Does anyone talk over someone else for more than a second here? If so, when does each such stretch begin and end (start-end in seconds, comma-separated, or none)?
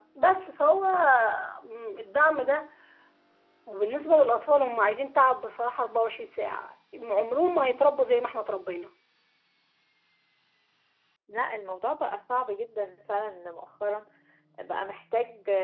none